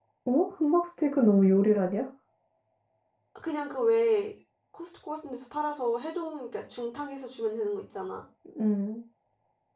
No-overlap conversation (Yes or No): Yes